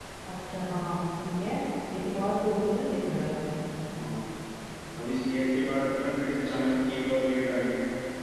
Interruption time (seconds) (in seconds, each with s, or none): none